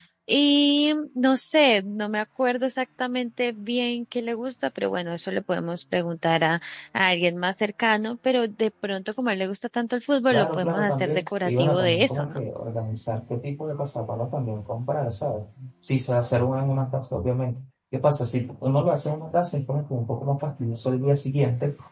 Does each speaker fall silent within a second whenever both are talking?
No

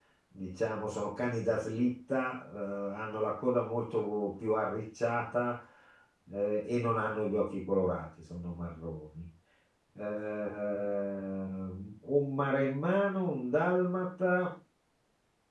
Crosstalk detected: No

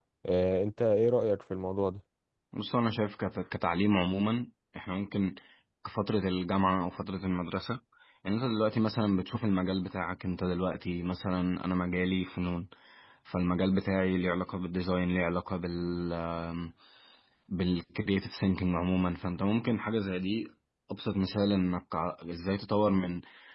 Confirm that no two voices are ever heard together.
Yes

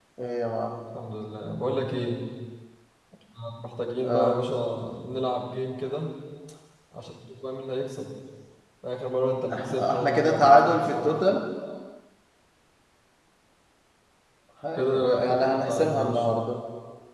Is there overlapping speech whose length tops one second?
Yes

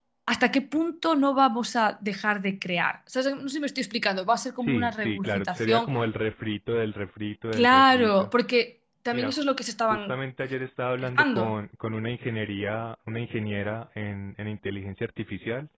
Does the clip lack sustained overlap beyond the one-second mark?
No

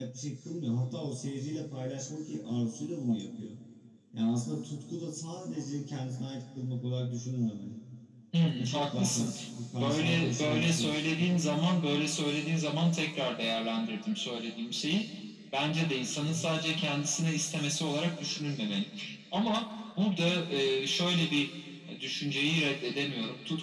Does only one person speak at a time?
No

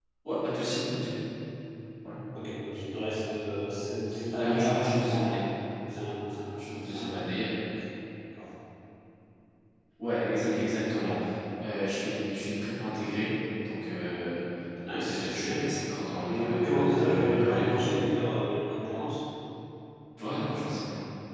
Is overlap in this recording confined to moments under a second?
No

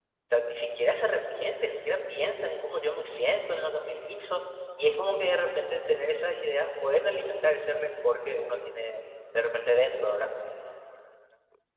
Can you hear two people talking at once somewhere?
No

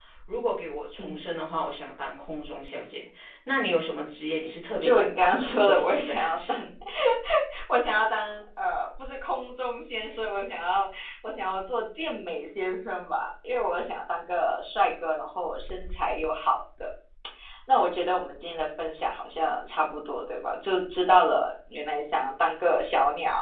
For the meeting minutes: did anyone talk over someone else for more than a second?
Yes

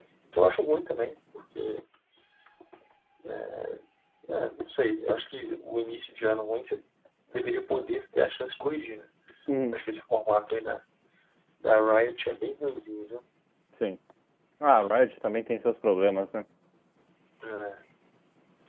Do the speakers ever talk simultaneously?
No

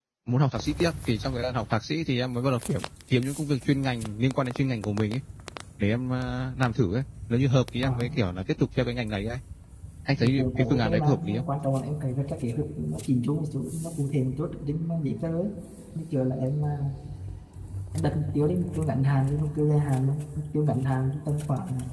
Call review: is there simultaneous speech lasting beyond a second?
Yes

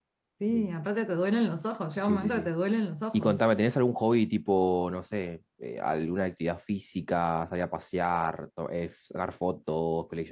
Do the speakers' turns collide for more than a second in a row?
No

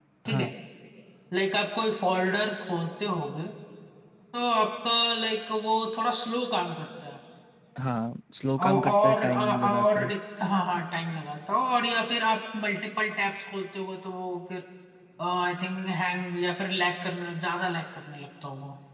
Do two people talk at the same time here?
Yes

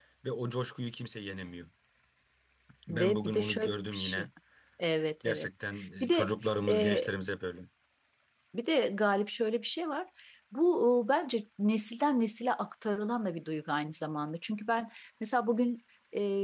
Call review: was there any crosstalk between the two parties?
Yes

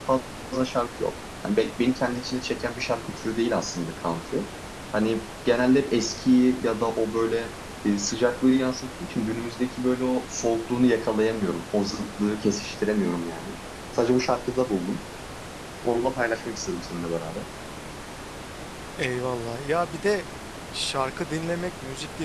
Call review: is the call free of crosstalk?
Yes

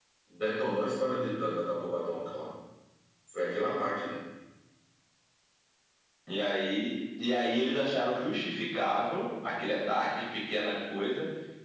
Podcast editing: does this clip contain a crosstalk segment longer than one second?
No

